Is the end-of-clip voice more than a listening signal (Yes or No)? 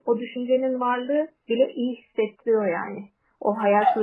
No